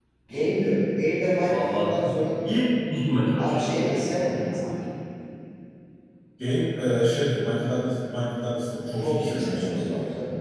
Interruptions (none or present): present